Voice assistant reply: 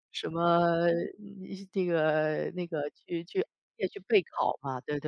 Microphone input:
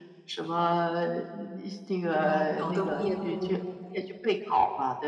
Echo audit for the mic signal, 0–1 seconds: echo only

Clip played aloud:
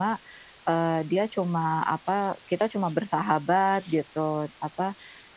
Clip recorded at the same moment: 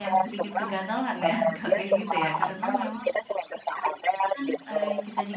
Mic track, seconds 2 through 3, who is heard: both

